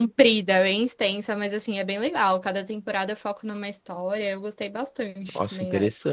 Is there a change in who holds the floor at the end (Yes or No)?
Yes